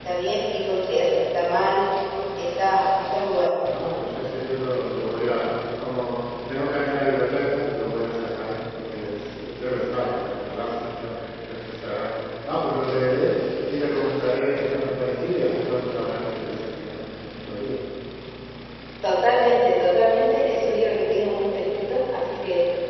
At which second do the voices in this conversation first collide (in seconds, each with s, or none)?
none